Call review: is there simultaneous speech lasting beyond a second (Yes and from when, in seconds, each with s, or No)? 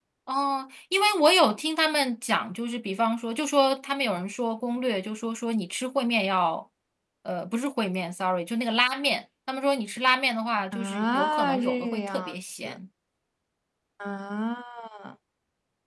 Yes, from 10.7 s